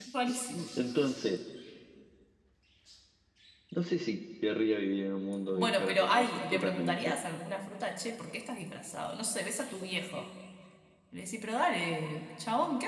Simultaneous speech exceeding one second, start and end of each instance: 5.5-7.1

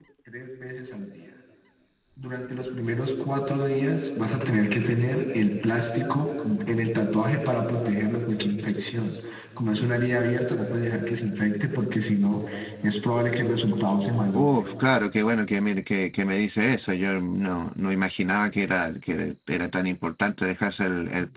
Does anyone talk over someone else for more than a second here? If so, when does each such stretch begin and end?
none

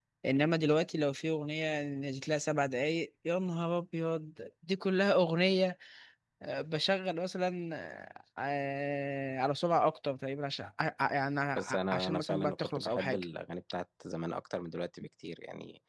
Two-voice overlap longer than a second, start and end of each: 11.6-13.2

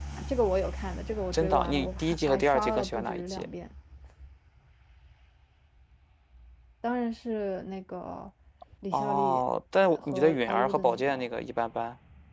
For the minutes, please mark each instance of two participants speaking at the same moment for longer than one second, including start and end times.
1.3-3.5, 9.8-11.1

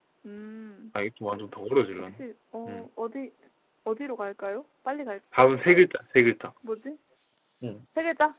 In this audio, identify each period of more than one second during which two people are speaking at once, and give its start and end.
none

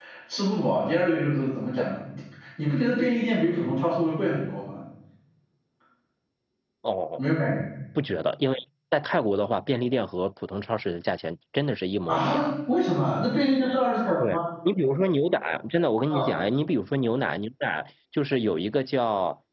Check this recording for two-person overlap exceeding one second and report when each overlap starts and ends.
none

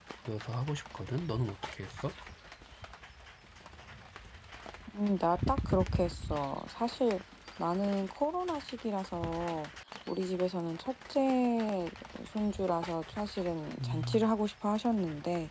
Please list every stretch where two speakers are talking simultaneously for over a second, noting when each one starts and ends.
none

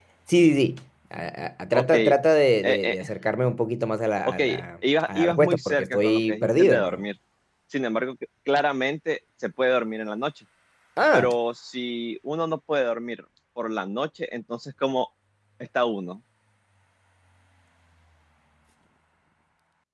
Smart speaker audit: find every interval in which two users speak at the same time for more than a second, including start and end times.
5.0-7.0

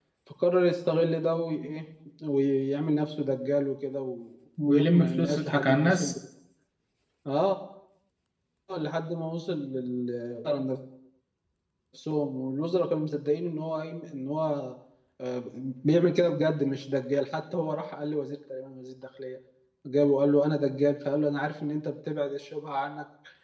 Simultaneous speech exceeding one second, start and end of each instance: 4.7-6.1

